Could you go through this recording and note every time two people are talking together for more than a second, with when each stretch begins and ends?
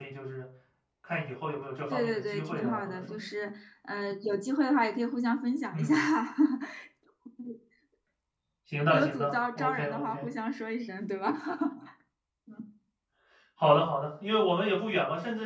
1.9-3.2, 8.9-10.3

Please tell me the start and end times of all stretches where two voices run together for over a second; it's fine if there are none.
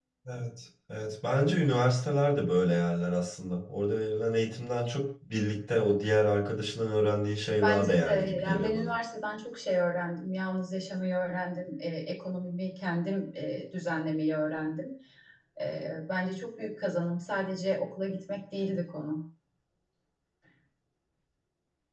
7.6-8.9

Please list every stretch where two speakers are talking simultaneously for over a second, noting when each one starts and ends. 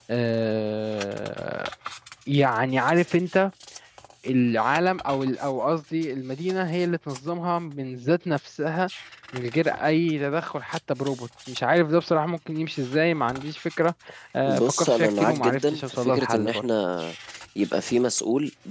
14.4-16.6

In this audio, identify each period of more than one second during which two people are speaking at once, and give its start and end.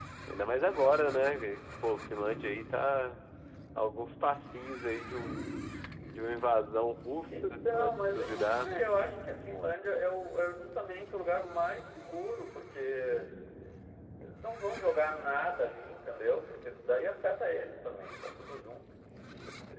7.3-8.7

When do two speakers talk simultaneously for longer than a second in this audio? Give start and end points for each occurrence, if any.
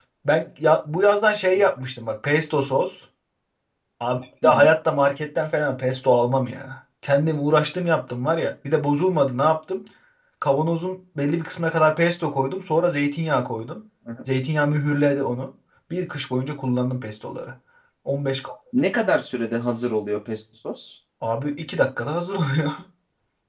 none

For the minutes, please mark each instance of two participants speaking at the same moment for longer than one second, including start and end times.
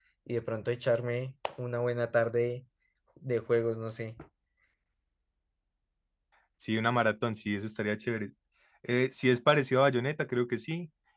none

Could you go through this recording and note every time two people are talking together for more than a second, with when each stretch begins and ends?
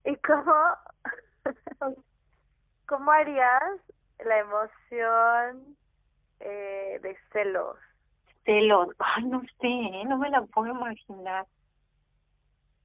none

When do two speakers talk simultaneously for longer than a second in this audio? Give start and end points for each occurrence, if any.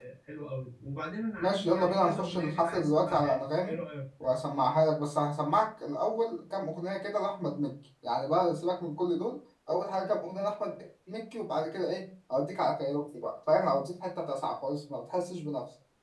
1.4-3.8

